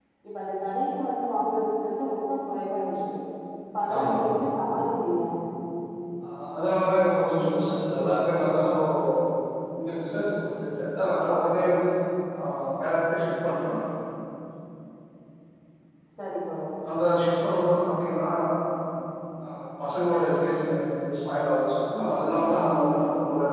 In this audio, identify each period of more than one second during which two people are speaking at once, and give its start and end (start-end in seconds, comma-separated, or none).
none